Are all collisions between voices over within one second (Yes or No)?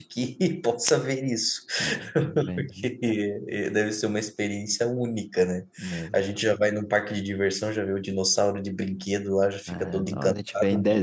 No